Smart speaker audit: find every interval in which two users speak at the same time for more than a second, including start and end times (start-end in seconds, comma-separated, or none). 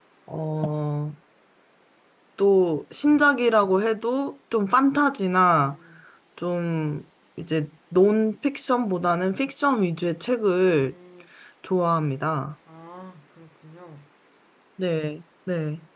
none